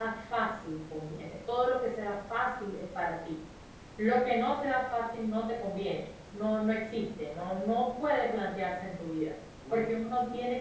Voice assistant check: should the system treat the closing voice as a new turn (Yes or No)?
No